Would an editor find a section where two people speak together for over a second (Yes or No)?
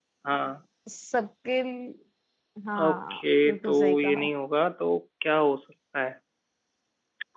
Yes